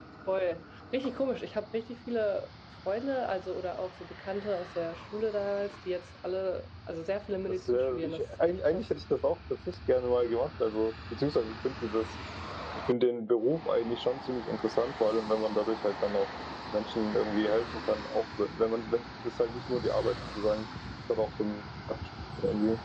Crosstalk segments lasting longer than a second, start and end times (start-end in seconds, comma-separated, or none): 7.5-8.9